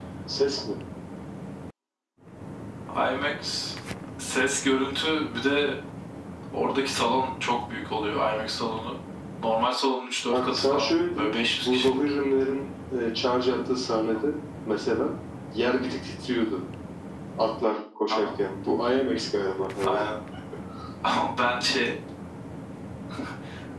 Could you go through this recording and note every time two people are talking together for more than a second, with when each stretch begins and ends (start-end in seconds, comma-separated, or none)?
10.3-12.0